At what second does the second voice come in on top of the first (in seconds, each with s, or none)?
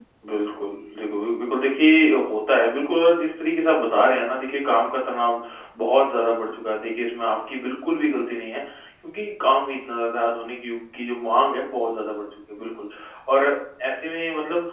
none